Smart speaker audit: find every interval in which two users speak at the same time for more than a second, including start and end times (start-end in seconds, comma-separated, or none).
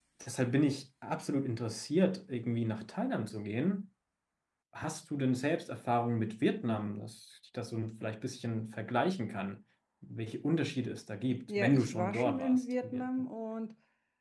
11.5-13.1